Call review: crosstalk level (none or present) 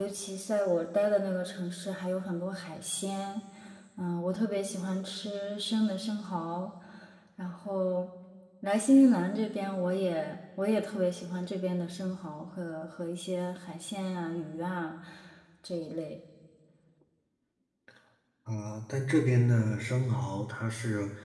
none